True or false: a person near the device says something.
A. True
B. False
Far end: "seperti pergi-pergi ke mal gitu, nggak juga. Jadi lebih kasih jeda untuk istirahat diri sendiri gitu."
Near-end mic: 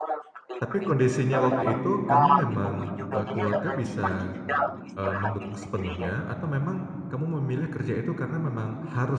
A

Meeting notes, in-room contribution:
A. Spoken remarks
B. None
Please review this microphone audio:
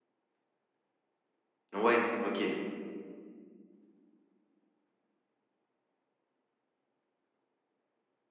A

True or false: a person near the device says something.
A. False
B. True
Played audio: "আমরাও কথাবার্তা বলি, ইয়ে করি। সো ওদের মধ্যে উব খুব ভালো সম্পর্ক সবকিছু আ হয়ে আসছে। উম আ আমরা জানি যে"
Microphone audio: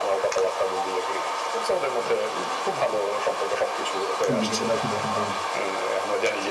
B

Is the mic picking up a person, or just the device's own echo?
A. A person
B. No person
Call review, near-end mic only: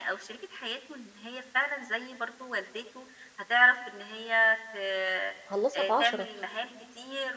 A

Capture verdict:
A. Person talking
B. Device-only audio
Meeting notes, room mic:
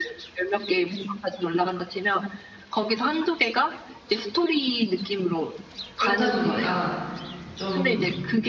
A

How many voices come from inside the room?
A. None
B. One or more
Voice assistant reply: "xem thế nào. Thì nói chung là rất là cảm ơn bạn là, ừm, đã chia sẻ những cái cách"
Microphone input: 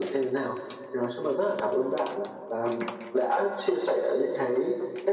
A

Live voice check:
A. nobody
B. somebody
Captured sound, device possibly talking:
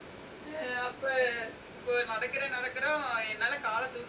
A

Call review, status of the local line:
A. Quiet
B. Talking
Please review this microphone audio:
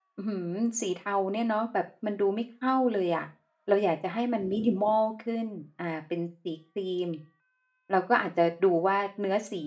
B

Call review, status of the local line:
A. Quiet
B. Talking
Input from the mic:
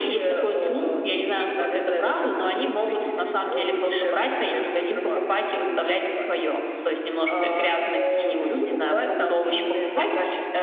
A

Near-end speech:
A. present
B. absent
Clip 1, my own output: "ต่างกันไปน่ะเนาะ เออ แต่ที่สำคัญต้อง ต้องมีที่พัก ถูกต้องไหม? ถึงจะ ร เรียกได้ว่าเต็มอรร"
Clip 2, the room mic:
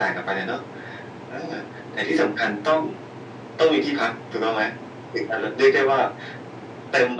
B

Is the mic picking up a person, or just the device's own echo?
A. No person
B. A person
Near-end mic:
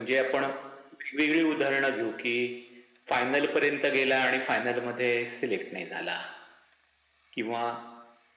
A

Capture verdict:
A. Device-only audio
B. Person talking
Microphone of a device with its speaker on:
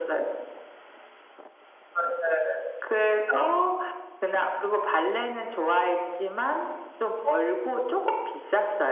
A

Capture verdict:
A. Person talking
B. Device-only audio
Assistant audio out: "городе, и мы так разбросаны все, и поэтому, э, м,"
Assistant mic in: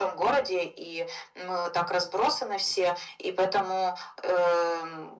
B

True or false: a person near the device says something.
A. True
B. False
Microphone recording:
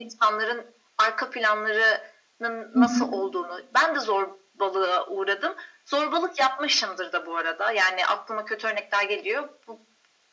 A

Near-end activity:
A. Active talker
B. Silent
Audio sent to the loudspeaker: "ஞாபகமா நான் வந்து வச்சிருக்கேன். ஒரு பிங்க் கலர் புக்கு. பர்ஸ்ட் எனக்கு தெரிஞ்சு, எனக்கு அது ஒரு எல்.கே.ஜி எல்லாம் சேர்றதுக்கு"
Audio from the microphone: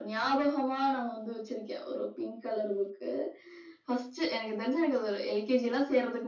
B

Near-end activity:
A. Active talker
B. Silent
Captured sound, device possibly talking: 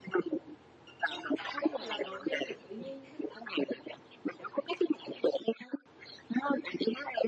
A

